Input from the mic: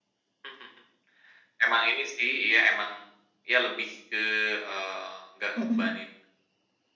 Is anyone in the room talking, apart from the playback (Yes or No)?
Yes